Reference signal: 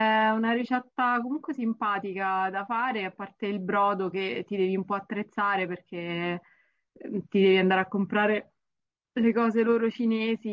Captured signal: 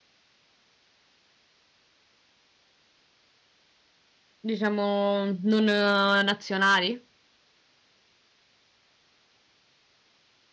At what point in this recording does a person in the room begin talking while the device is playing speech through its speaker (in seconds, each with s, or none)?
4.4 s